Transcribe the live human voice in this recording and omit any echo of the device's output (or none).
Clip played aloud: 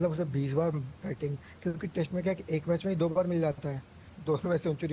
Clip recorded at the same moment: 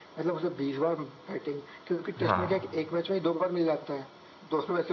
हाँ